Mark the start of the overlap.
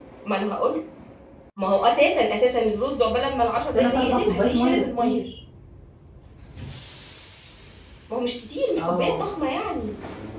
3.7 s

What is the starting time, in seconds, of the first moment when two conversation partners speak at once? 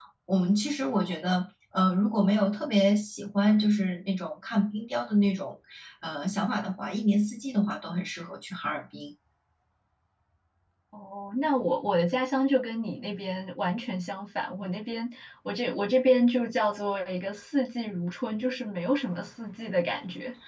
none

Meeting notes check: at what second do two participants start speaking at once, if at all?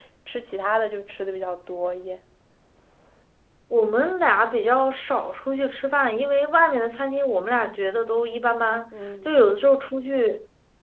none

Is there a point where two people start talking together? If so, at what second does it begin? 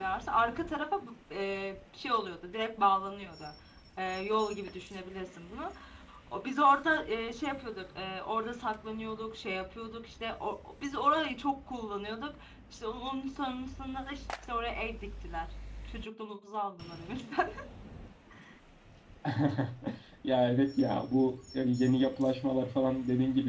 none

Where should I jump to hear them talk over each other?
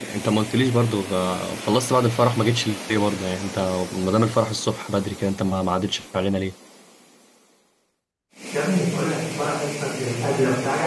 none

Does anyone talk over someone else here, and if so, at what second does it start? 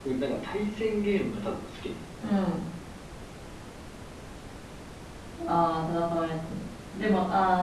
none

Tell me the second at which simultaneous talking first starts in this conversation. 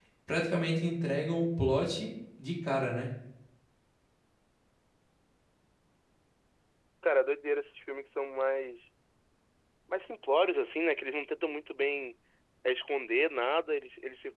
none

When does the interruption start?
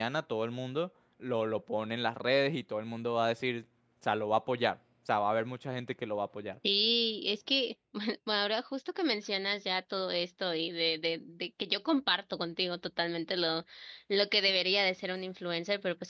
none

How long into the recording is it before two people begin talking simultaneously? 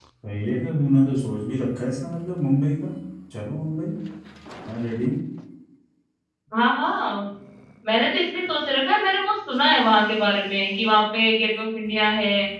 none

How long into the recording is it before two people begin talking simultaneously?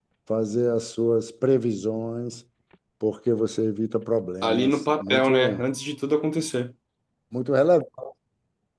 4.4 s

